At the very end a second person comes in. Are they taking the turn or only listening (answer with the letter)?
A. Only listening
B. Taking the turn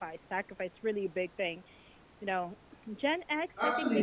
B